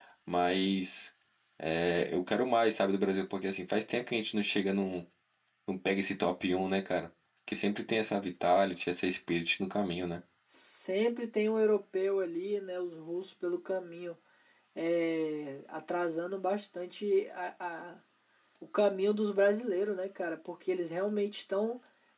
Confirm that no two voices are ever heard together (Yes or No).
Yes